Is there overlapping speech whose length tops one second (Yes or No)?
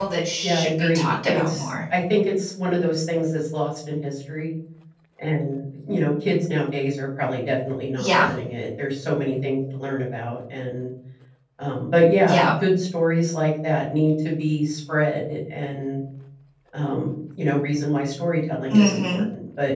Yes